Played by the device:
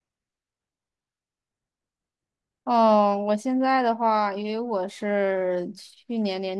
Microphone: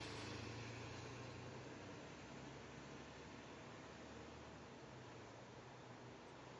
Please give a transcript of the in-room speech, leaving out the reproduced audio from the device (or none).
none